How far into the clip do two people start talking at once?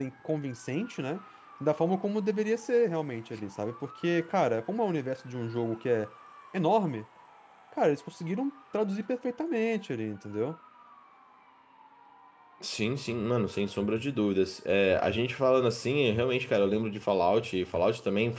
none

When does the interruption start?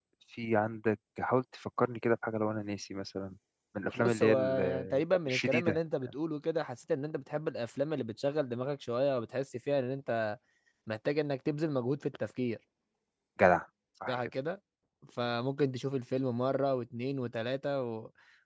4 s

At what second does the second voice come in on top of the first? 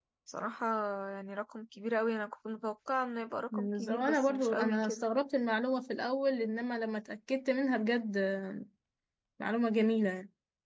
4 s

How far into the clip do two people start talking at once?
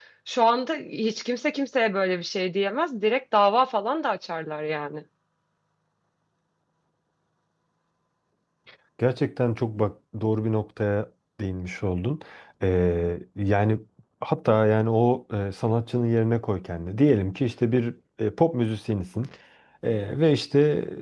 none

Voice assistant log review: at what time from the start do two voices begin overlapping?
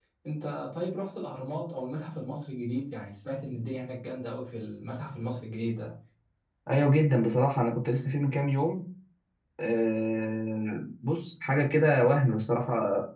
none

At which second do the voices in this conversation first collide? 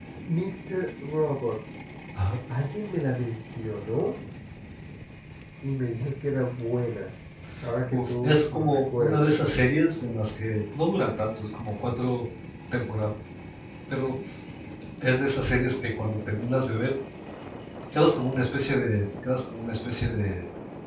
8 s

